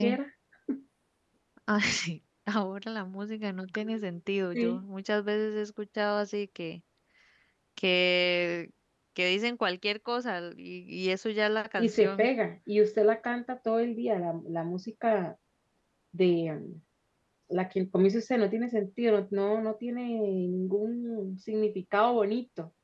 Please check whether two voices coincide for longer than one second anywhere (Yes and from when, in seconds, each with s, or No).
No